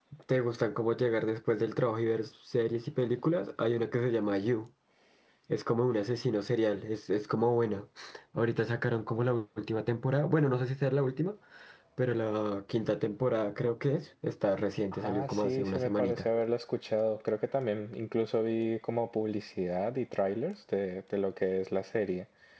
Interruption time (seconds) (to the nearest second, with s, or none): 15 s